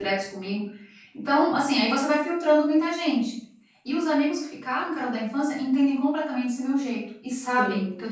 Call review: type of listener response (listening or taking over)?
listening